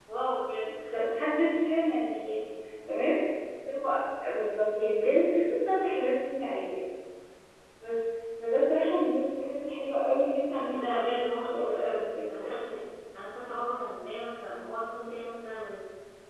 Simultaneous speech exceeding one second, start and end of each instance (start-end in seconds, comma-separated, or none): 10.8-12.5